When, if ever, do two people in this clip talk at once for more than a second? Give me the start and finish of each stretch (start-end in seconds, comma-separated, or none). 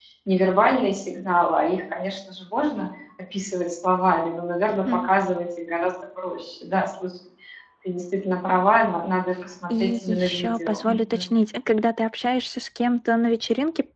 9.7-11.2